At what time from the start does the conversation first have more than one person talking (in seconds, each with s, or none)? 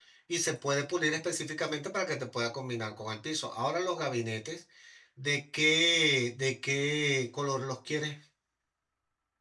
none